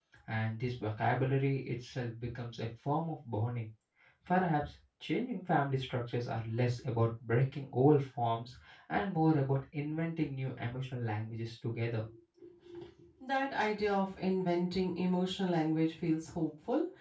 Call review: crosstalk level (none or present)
none